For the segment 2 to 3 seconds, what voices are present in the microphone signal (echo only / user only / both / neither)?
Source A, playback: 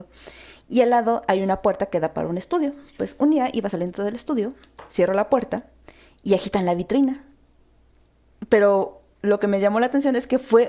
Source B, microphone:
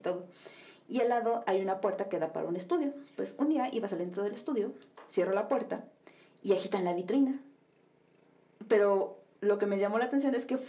echo only